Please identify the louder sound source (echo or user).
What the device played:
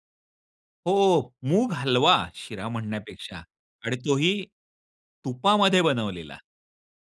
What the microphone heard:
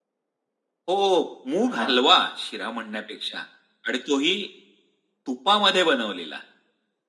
echo